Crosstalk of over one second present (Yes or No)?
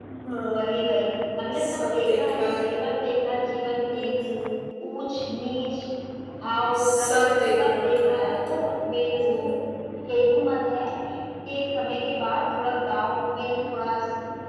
Yes